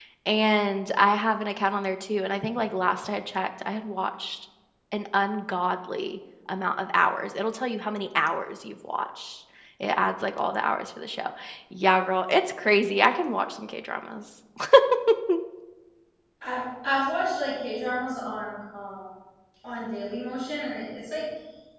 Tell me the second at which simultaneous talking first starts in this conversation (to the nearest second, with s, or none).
none